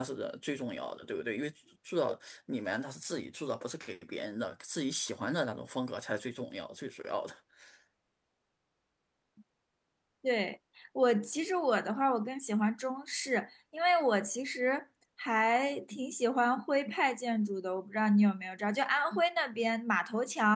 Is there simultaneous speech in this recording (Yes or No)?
No